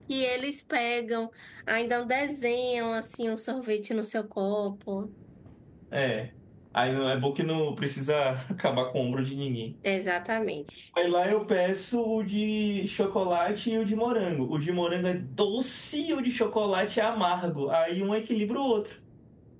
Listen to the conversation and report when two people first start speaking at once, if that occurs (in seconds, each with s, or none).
none